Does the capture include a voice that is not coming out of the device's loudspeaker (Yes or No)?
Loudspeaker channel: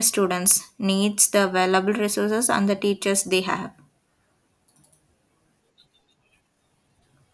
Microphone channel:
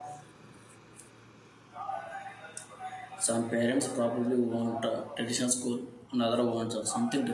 Yes